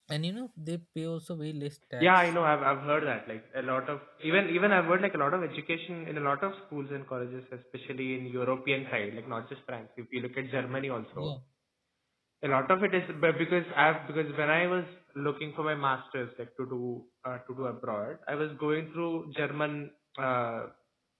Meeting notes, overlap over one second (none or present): none